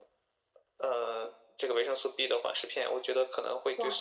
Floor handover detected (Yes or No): Yes